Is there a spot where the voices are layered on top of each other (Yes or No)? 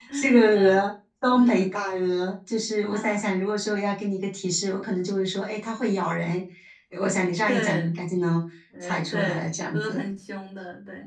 Yes